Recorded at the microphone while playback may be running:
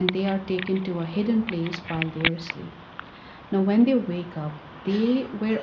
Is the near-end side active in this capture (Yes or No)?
No